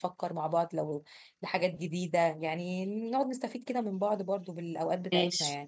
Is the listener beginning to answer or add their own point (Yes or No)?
Yes